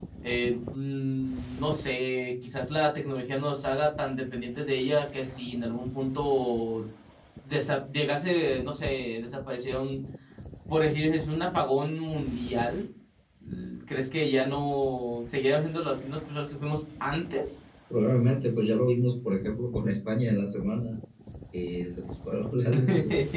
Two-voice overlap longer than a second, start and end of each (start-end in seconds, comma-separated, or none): none